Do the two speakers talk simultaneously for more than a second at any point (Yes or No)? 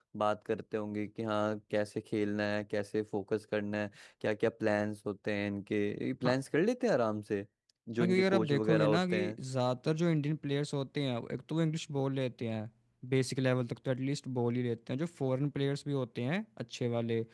Yes